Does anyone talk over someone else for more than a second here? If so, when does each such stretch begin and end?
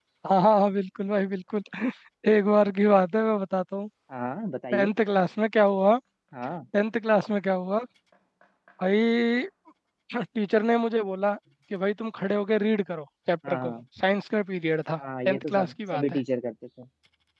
15.0-16.2

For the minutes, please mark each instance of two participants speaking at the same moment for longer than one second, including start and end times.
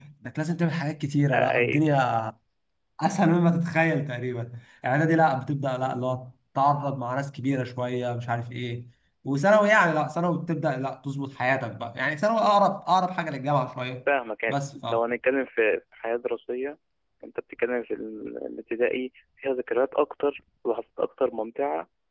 none

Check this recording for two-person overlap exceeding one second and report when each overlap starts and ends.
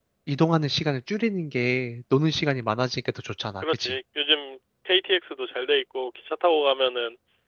none

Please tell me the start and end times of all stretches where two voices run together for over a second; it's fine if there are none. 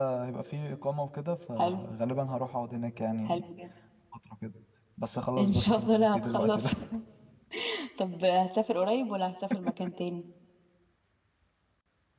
5.4-6.7

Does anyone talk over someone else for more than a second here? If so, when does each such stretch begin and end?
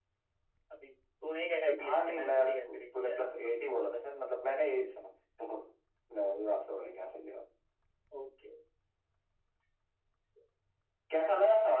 1.8-3.3

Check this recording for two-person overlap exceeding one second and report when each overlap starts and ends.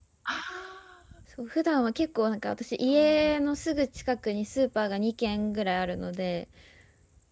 none

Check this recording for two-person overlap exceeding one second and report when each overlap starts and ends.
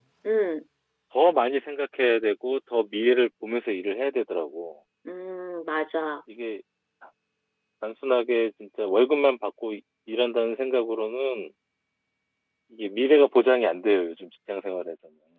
none

